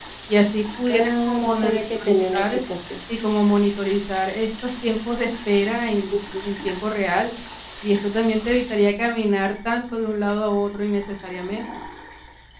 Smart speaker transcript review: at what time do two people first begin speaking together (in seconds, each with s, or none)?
0.9 s